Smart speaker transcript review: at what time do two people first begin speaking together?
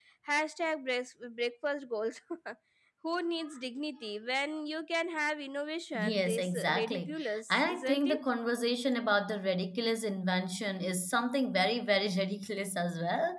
5.9 s

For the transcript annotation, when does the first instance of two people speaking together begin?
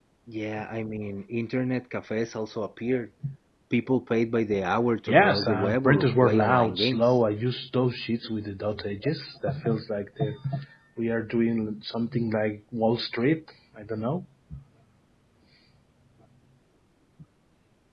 5.1 s

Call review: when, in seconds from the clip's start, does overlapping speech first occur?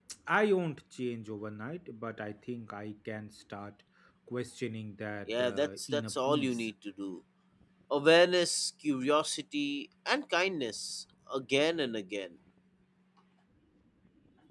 5.3 s

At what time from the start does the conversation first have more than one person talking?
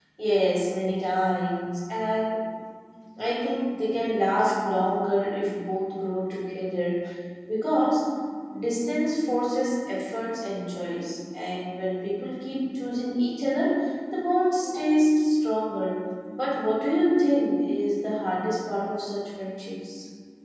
none

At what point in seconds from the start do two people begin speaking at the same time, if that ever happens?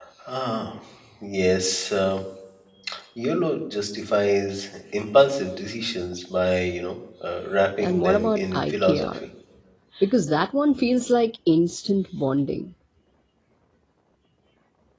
7.8 s

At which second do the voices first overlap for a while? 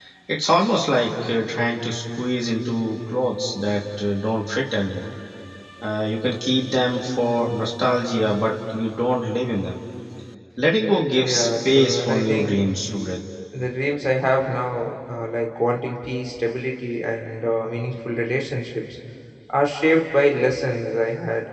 11.2 s

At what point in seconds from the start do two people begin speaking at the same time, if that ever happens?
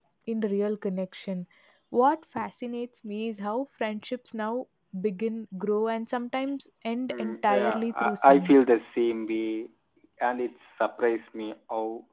7.1 s

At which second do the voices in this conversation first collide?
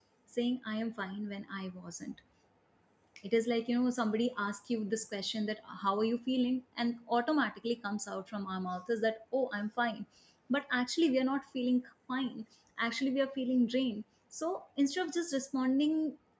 none

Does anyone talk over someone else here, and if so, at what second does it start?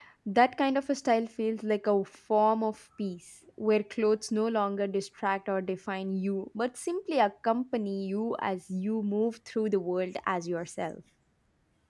none

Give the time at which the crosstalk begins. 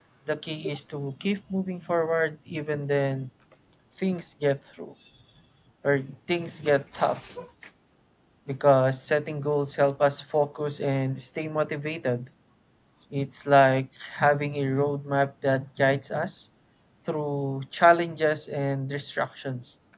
none

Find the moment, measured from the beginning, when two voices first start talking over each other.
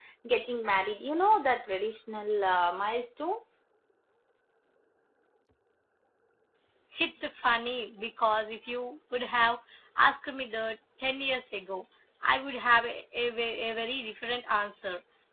none

